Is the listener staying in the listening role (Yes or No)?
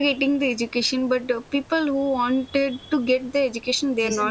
No